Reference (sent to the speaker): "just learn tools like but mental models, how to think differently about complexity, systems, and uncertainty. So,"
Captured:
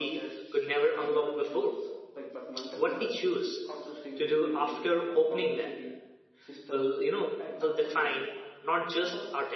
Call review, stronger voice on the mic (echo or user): user